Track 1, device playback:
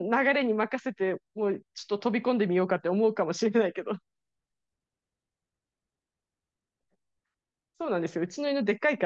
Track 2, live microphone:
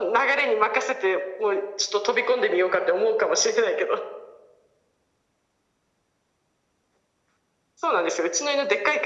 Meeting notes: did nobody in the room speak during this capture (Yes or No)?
Yes